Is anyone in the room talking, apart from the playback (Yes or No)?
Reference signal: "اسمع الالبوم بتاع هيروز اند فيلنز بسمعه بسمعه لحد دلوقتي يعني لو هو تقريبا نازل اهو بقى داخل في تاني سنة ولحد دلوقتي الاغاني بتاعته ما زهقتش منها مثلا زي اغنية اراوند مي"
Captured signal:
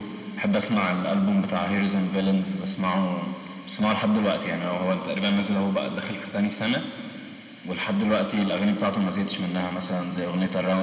No